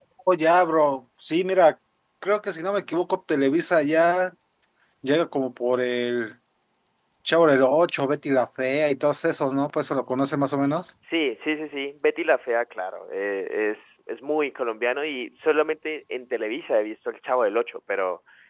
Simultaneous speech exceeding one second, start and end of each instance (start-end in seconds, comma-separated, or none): none